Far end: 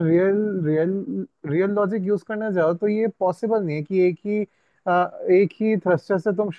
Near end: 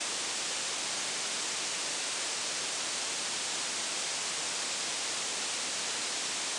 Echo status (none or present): none